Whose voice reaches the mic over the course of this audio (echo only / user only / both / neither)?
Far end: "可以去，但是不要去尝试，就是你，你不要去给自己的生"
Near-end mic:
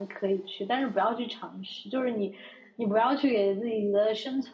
echo only